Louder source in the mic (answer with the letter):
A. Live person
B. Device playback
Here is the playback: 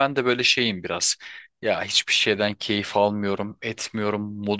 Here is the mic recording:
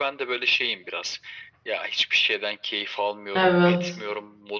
A